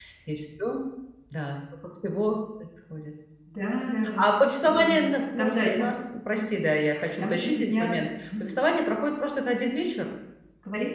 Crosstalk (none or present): present